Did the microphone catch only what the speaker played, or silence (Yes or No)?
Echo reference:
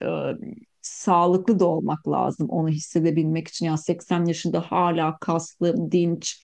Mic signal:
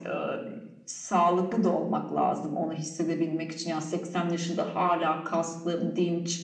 Yes